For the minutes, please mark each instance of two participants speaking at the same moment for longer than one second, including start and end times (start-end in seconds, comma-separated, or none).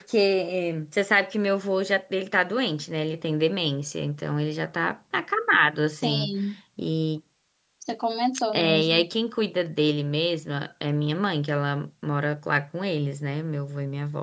none